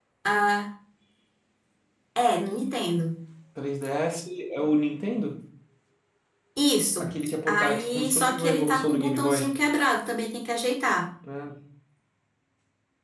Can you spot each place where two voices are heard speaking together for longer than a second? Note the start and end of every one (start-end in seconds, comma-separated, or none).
7.0-9.5